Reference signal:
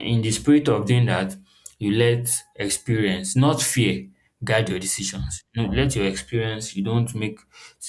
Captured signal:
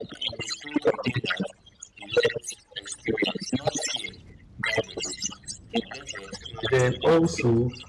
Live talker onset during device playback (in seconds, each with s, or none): 6.7 s